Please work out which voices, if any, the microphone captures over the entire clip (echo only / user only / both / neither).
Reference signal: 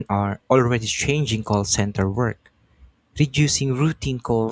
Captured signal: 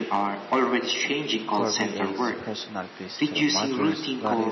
both